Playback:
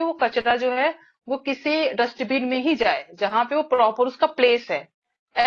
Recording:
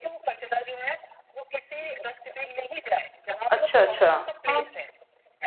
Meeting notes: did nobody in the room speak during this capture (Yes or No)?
No